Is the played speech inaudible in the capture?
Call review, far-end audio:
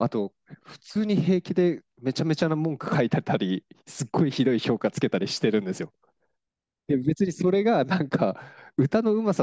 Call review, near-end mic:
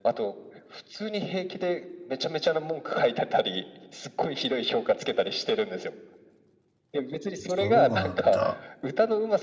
No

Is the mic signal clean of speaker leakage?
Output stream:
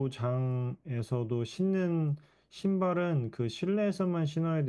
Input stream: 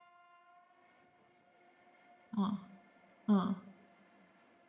Yes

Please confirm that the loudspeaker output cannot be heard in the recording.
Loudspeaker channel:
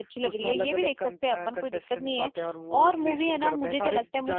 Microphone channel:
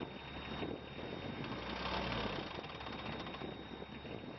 Yes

